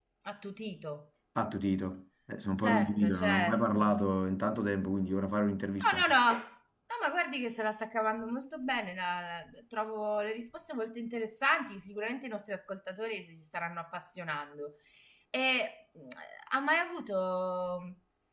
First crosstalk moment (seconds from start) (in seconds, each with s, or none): 2.6 s